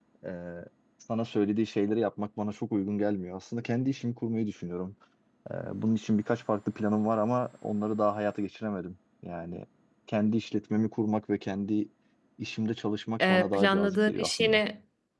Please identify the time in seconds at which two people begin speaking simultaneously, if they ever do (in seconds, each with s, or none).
13.2 s